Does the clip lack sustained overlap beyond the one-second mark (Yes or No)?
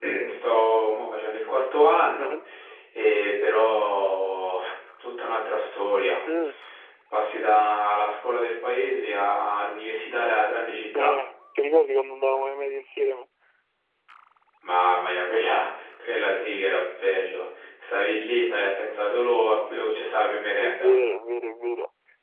Yes